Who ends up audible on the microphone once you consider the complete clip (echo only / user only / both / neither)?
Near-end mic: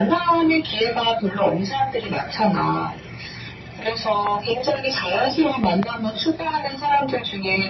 echo only